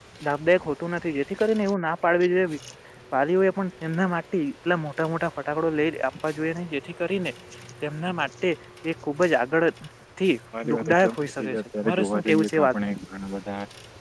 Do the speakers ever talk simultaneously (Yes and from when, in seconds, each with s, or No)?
Yes, from 10.7 s